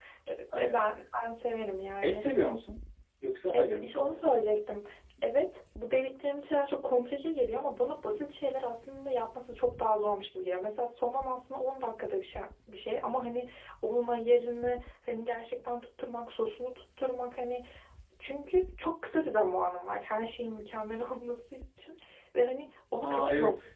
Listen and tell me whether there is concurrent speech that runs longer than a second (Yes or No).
No